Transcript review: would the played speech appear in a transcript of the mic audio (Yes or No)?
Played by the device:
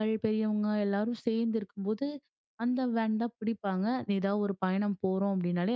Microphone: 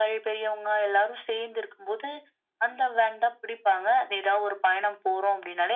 Yes